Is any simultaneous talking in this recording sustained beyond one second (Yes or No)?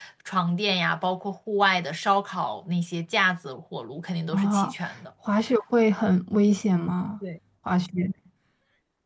No